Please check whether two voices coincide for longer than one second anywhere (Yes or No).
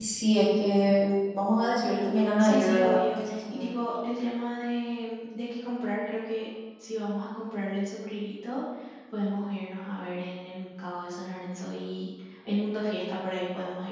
Yes